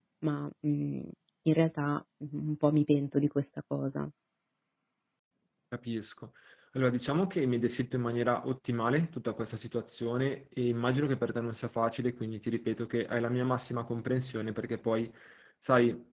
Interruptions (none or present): none